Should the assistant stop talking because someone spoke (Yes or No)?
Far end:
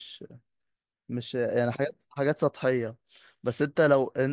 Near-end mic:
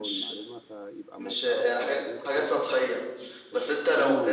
Yes